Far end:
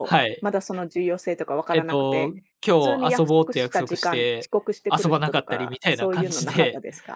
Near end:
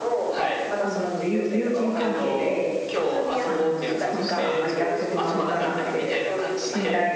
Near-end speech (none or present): present